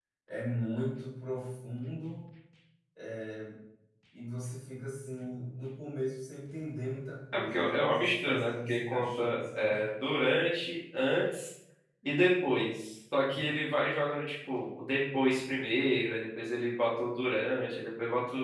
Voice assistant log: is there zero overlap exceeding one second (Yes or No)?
No